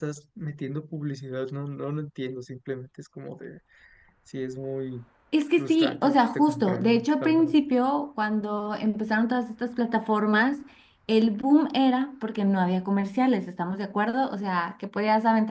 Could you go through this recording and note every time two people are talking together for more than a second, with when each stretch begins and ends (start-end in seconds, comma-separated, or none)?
5.6-7.5